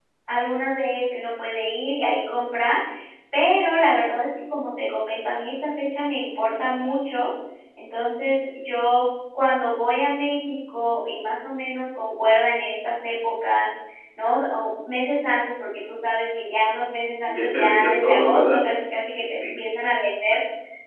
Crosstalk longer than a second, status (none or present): present